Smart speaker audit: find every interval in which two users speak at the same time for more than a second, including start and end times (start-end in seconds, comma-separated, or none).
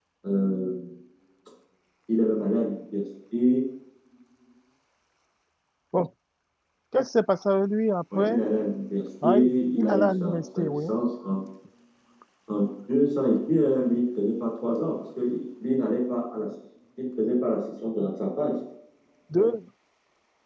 9.2-10.8